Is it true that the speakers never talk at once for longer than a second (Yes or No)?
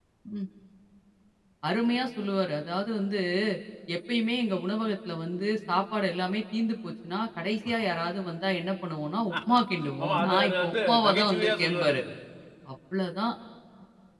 No